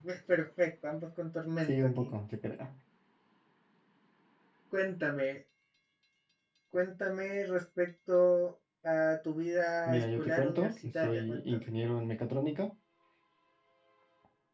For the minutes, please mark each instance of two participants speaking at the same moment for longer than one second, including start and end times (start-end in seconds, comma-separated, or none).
9.8-11.4